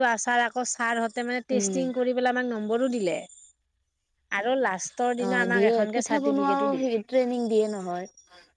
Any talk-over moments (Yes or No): Yes